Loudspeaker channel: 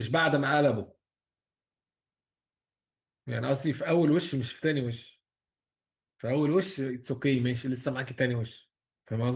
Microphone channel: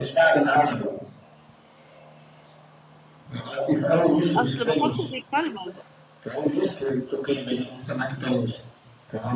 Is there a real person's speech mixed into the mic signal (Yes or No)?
Yes